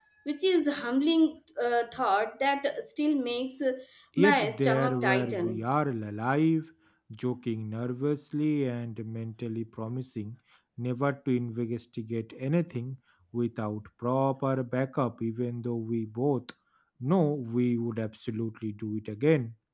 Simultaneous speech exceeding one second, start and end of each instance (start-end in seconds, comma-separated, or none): 4.2-5.6